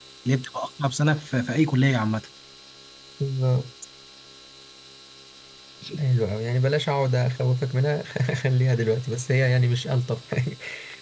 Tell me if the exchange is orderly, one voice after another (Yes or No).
Yes